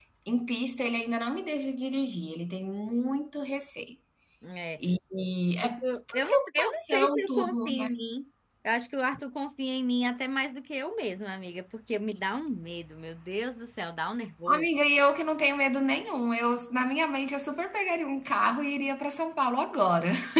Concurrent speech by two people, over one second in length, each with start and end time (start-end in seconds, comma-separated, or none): 6.2-7.9